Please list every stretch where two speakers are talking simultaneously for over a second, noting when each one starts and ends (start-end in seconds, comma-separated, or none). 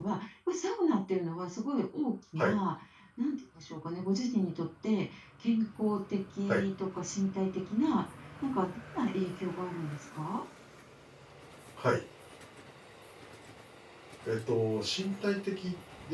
none